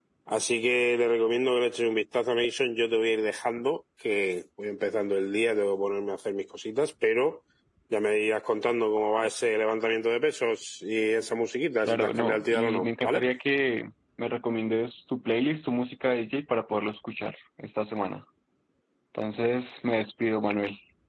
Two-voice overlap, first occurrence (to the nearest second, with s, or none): 12 s